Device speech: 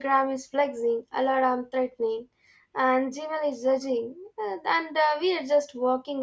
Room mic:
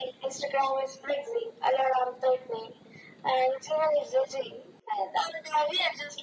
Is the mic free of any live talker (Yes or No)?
Yes